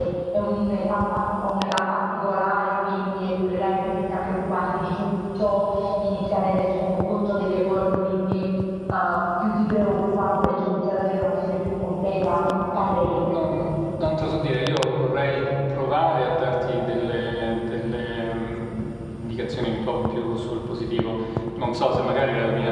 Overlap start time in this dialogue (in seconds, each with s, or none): none